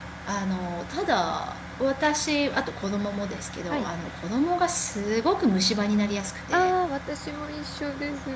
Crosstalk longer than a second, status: none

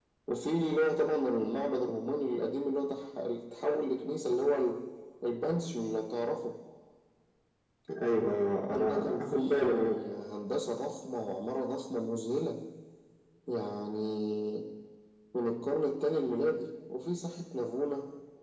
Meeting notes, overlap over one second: present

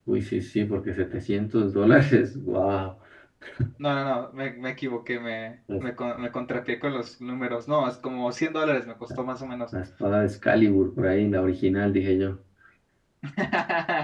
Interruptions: none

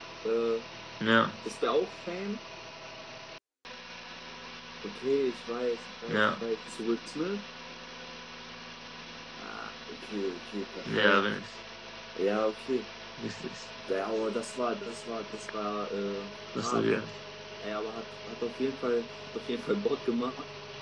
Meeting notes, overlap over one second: none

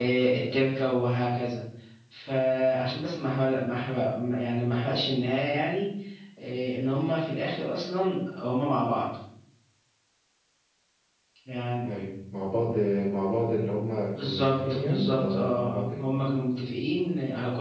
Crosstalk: present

